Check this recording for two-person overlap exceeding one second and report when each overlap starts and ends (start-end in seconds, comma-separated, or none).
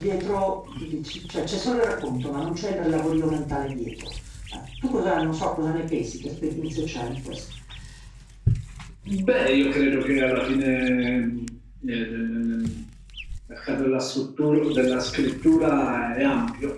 none